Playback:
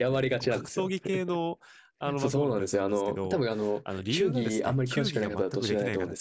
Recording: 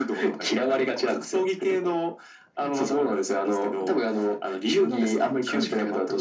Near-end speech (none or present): none